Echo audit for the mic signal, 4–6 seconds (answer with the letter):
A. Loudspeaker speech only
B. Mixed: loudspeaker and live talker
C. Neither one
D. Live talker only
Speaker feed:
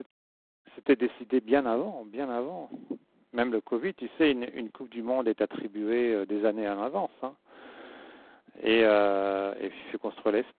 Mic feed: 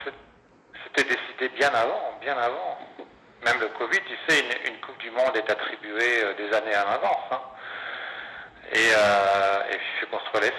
A